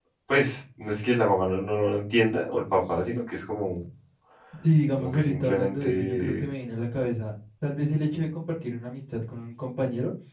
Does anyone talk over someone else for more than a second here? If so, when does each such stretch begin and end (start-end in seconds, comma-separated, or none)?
5.0-6.4